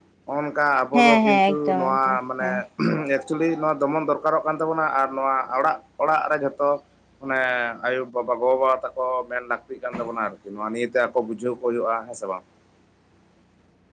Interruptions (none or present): present